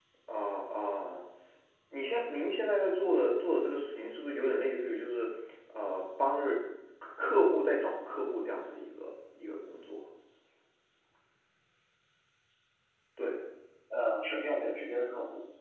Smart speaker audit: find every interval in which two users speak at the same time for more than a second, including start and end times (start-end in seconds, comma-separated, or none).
none